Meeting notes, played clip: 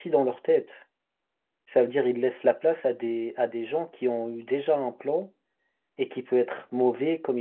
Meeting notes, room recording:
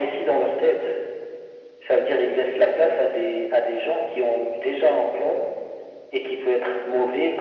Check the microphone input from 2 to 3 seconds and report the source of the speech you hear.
echo only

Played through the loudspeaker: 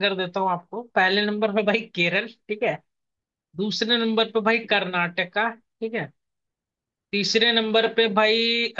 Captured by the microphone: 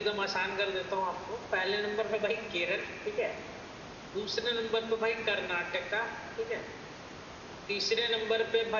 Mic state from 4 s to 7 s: echo only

